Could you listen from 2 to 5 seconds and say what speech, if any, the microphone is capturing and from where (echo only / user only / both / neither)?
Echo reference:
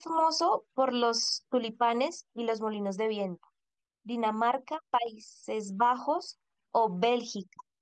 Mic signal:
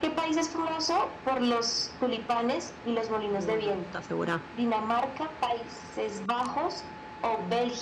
both